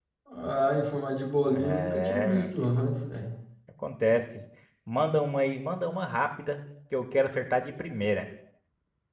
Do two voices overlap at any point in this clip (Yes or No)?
Yes